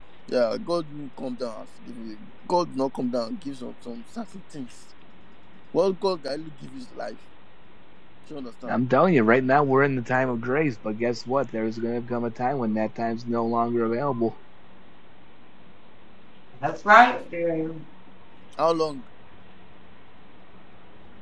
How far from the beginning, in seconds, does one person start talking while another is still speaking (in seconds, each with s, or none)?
none